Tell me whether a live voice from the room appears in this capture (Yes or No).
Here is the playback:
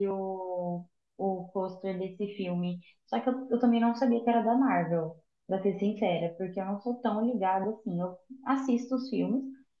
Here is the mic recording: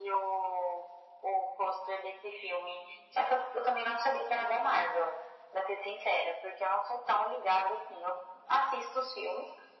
No